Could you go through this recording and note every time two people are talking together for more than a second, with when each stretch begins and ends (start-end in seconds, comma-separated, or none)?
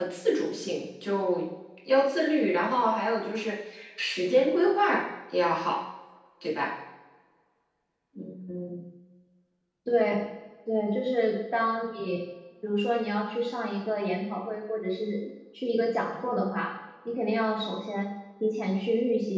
none